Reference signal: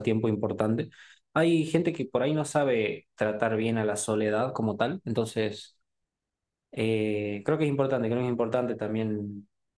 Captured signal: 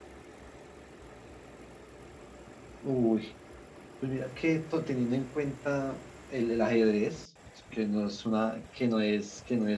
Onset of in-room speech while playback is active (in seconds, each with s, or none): 2.8 s